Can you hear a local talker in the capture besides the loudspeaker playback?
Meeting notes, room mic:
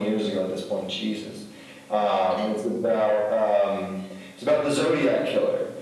No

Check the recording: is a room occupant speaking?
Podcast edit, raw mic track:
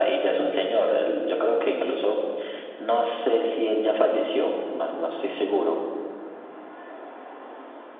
No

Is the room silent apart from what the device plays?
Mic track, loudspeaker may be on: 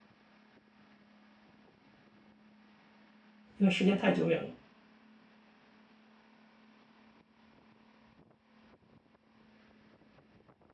No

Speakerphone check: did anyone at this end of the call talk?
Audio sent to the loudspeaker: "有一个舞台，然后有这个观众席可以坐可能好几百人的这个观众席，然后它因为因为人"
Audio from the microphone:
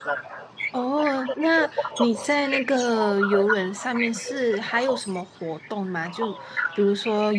Yes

